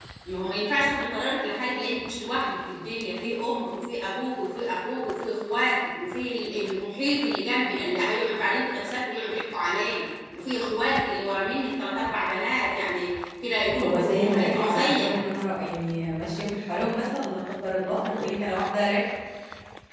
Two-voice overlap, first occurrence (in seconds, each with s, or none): 13.8 s